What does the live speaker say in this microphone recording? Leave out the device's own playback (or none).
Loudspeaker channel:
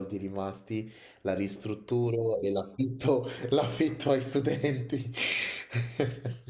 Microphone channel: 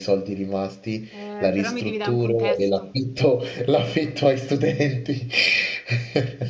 Eh, però mi devi dare un contesto.